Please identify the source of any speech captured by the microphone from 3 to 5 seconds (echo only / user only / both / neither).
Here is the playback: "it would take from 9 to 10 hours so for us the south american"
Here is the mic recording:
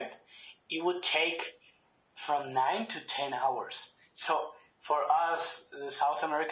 echo only